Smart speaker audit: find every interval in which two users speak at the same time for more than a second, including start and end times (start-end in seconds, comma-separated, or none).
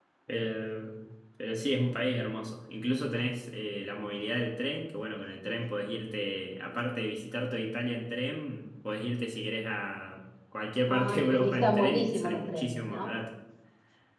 10.9-13.1